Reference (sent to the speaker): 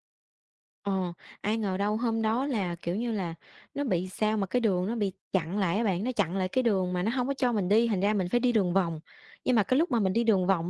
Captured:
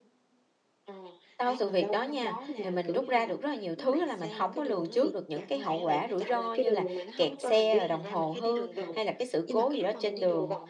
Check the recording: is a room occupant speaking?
Yes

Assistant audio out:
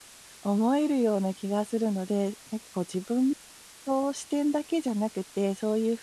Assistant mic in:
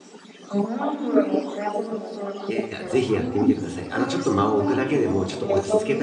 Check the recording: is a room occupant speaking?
Yes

